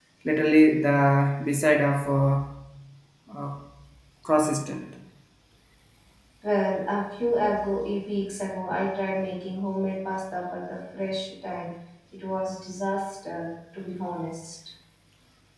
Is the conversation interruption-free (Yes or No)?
Yes